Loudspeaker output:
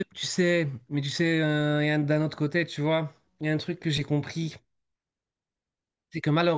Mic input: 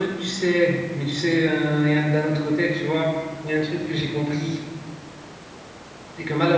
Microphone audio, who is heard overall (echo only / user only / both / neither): echo only